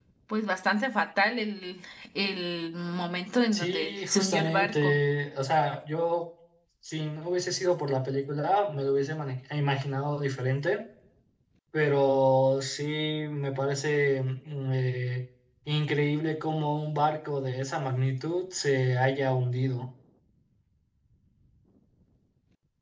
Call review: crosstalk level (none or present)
present